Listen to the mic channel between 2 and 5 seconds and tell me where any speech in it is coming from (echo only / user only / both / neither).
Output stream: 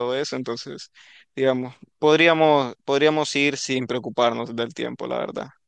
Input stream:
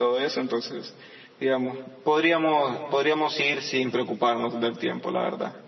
echo only